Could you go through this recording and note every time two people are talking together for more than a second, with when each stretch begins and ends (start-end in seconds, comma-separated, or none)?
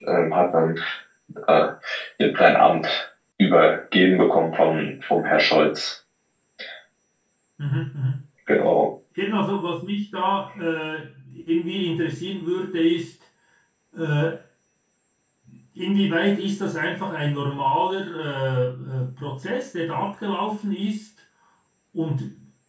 none